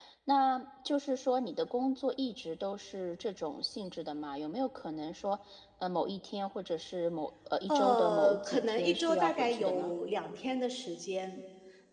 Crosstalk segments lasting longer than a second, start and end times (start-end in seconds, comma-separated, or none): 7.7-9.9